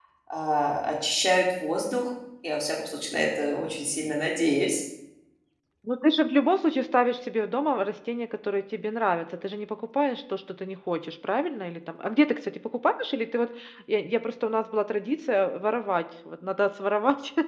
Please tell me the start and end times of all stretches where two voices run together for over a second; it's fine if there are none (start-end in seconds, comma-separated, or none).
none